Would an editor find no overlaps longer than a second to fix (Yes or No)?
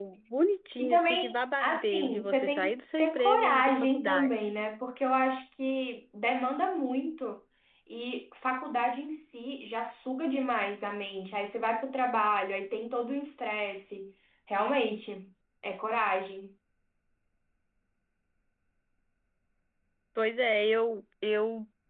No